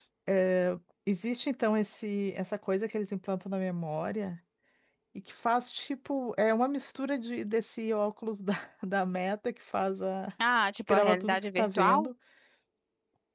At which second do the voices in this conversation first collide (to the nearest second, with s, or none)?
11 s